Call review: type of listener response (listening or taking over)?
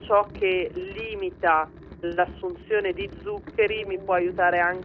listening